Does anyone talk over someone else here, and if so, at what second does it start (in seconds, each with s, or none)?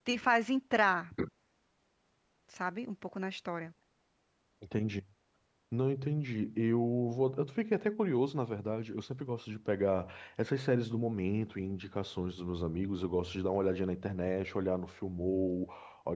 none